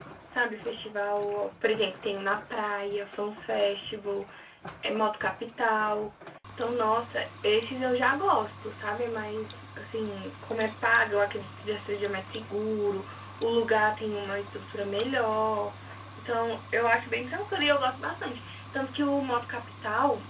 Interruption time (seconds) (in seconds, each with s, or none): none